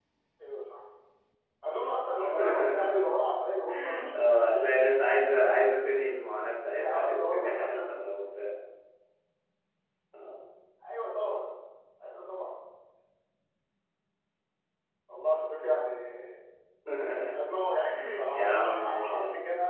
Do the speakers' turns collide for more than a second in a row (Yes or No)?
Yes